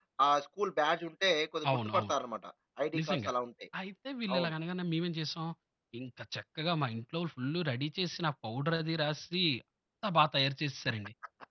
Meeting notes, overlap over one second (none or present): none